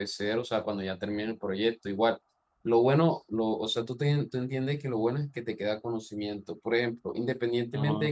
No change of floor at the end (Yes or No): Yes